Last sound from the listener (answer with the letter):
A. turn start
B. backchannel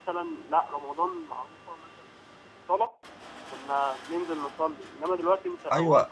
A